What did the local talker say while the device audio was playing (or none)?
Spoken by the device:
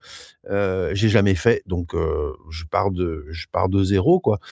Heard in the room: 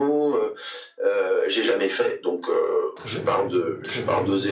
très bien, très bien.